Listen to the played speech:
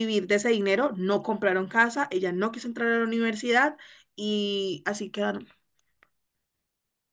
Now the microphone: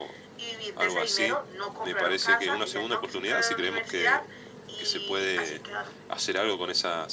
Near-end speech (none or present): present